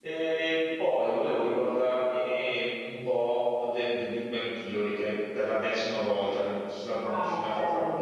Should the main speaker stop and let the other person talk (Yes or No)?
Yes